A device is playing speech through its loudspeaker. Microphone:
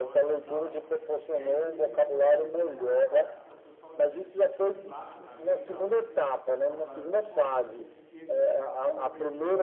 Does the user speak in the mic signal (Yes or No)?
Yes